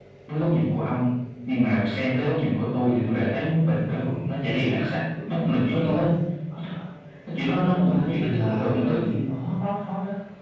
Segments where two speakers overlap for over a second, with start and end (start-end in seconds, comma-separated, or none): 7.7-9.0